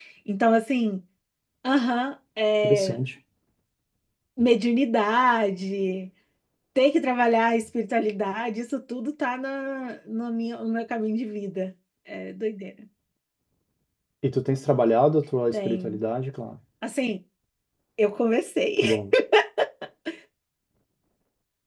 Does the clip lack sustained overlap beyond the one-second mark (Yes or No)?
Yes